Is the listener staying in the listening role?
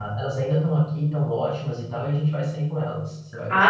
No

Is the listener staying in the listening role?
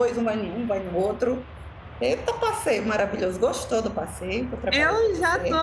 No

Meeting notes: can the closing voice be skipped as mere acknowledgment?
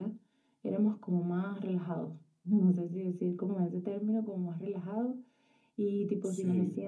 Yes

